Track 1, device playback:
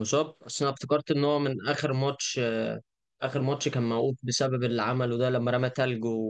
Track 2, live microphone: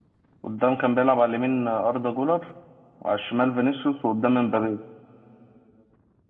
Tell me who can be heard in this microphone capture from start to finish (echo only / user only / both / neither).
user only